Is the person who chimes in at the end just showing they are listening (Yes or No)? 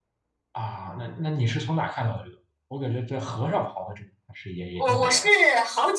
No